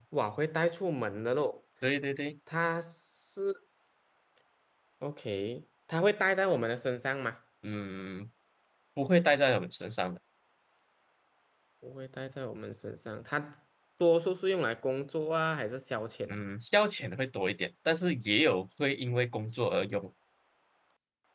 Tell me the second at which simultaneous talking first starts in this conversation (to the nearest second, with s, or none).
none